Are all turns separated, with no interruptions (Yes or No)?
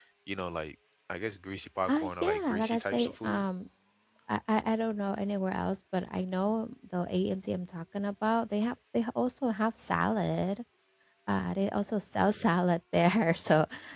No